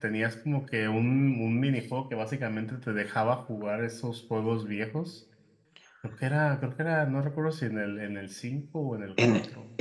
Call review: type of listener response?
taking over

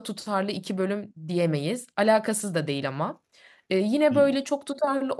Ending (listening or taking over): listening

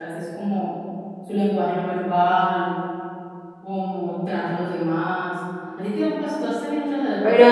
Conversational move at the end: taking over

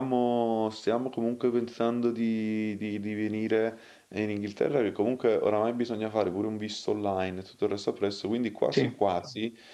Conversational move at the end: listening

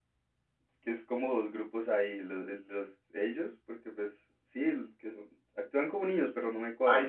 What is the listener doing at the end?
taking over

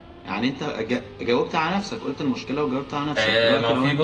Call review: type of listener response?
taking over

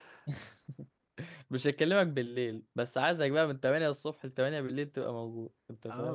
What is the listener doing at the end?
taking over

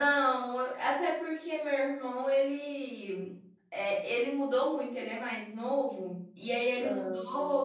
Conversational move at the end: listening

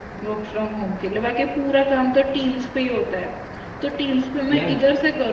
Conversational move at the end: listening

